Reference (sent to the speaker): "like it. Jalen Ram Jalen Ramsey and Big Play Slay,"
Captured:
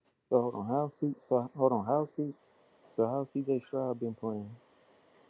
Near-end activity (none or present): present